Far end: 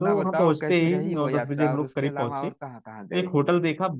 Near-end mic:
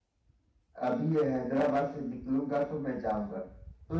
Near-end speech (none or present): present